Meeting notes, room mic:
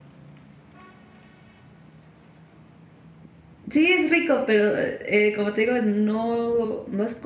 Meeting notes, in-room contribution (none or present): present